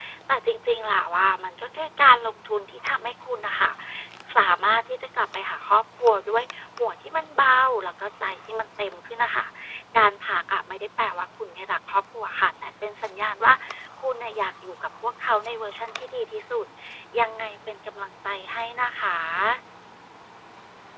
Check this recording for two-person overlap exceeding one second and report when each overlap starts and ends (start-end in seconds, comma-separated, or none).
none